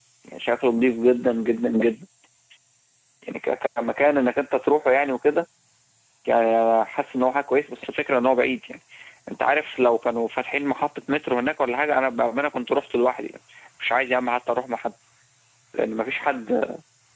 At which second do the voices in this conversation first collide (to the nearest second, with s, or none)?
none